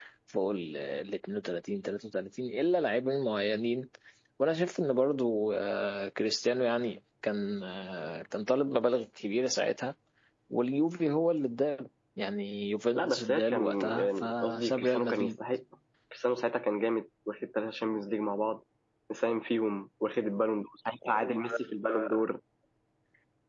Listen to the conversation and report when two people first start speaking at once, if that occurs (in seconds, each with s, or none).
12.9 s